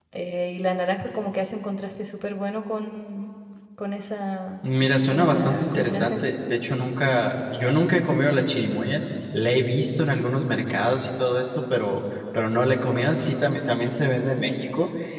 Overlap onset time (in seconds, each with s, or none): 5.1 s